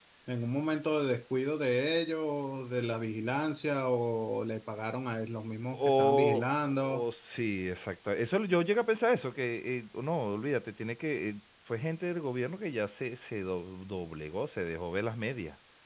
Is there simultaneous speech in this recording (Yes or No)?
Yes